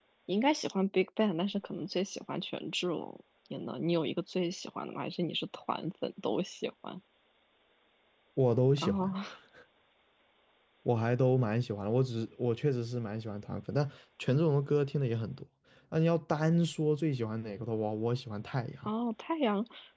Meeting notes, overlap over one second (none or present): none